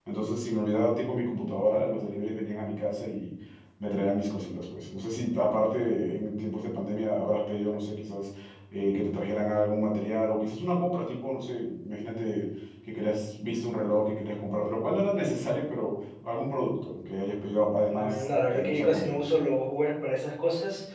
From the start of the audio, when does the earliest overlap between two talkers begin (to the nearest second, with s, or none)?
18 s